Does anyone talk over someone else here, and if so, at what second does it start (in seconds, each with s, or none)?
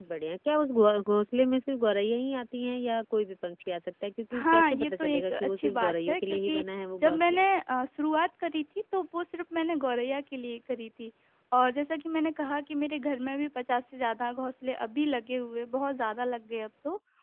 4.3 s